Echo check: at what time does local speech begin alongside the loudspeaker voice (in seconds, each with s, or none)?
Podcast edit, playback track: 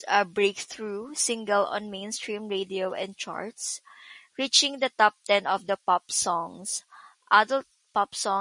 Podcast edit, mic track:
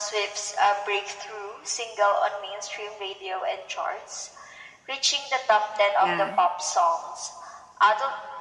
6.0 s